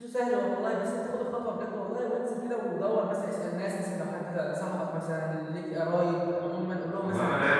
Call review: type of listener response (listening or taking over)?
taking over